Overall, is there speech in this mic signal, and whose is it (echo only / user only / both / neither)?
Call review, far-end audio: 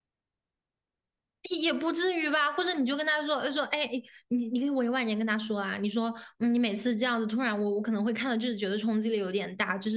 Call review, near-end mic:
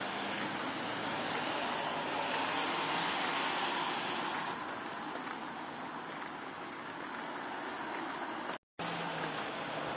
neither